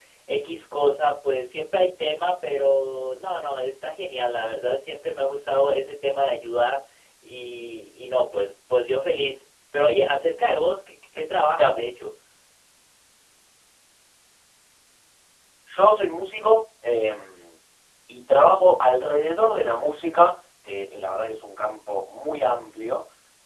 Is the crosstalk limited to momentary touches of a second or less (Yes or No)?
Yes